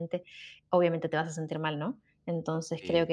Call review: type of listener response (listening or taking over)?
listening